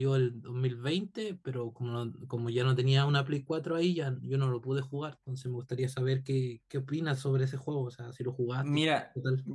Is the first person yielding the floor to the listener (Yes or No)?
Yes